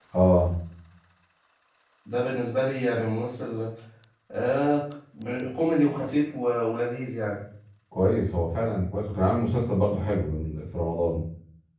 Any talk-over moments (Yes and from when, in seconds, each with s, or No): No